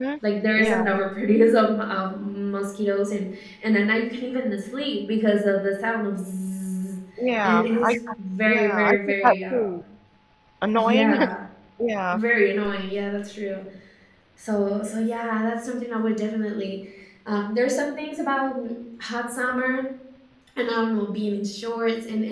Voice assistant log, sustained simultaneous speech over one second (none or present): present